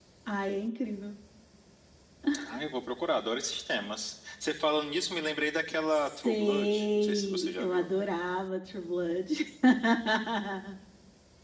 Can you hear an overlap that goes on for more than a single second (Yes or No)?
Yes